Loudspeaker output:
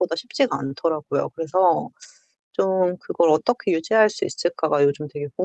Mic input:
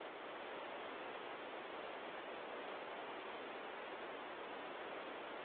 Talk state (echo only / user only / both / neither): neither